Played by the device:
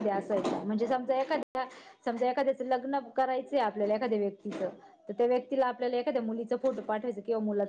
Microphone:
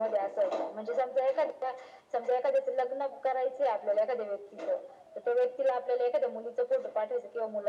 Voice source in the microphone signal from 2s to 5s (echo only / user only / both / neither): echo only